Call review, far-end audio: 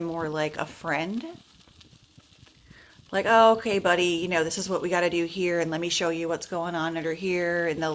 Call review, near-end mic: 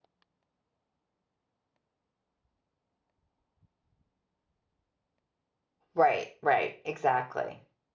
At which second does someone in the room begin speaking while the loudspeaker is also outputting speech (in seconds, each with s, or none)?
6.0 s